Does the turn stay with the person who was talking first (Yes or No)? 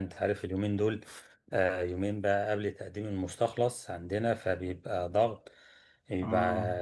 Yes